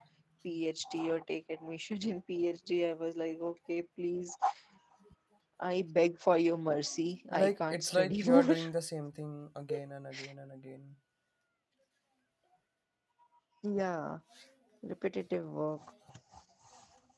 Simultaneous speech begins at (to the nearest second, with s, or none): 7 s